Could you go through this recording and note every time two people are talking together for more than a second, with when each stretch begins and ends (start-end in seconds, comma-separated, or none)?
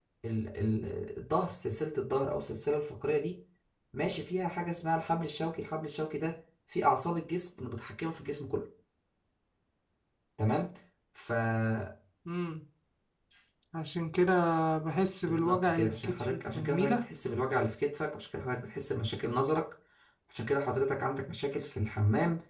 15.2-17.0